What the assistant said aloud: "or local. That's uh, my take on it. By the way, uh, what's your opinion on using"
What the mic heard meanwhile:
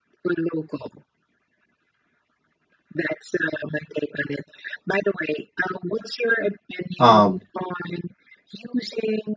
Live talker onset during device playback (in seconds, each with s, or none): 7.0 s